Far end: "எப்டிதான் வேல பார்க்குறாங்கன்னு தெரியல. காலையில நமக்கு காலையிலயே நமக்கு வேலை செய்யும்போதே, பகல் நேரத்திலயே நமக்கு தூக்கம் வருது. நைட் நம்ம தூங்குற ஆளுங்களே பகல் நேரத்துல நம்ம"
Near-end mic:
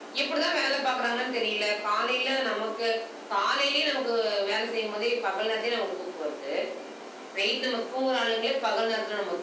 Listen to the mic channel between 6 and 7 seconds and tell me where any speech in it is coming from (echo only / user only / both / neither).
echo only